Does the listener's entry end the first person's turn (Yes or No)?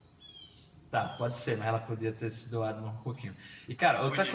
No